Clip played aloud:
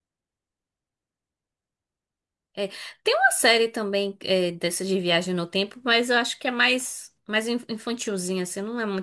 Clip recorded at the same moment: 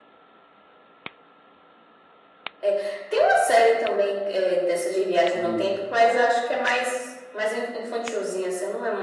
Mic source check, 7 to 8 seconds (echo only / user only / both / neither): echo only